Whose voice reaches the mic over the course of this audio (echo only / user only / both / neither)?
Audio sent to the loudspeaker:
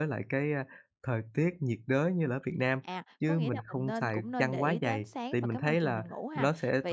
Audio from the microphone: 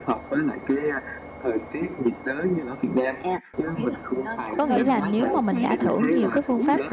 both